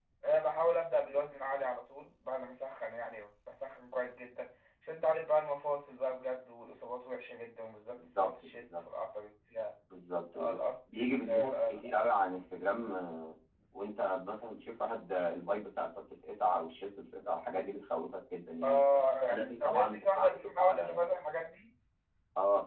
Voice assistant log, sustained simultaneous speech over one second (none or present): present